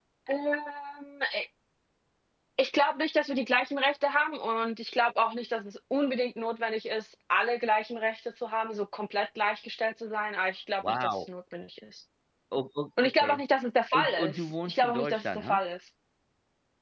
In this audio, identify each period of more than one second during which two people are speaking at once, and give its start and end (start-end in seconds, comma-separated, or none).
13.9-15.6